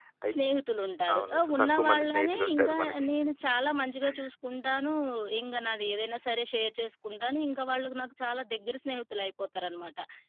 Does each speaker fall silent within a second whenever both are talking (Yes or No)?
No